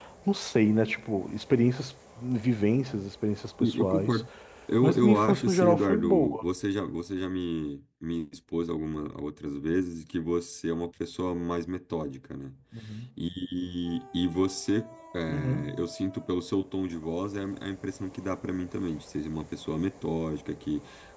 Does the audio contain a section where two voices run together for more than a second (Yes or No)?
Yes